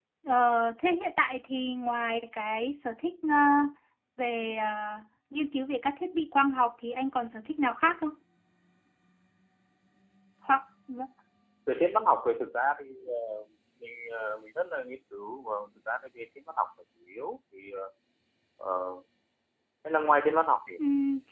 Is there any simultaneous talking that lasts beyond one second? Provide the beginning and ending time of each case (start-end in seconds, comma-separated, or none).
none